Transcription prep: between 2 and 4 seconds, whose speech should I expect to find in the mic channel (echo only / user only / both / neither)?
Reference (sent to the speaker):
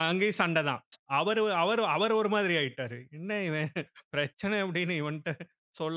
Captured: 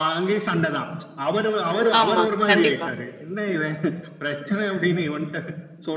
both